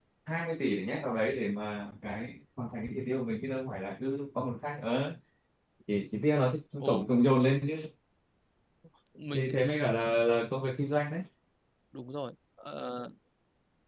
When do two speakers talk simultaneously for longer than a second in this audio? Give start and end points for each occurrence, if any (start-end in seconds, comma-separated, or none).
none